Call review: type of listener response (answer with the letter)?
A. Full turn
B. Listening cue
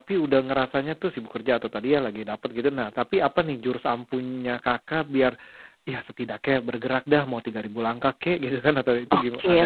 A